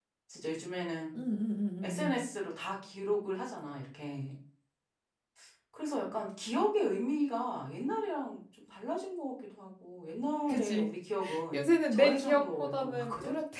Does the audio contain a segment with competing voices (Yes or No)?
Yes